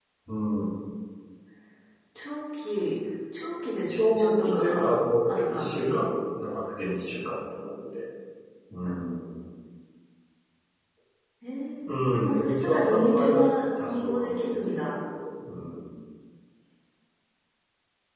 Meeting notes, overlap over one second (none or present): present